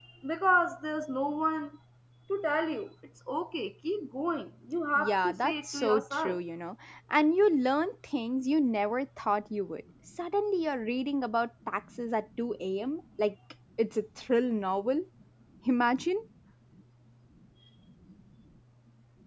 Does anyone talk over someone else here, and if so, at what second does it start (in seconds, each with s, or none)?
5.0 s